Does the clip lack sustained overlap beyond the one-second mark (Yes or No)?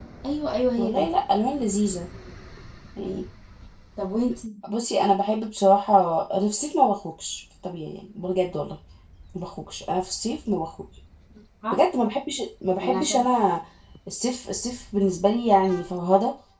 Yes